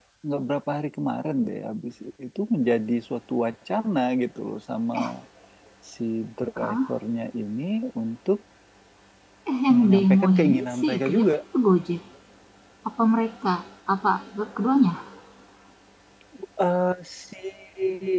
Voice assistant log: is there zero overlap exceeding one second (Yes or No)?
No